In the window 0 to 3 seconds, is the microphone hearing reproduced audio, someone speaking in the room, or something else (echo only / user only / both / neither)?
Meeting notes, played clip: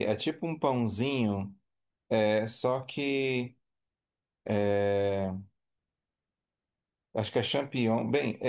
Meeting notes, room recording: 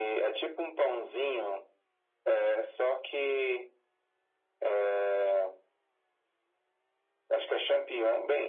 echo only